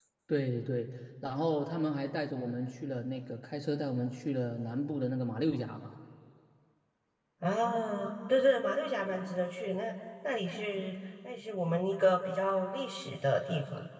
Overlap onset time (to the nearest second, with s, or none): none